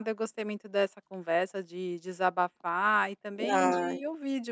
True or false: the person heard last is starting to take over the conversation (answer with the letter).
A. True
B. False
B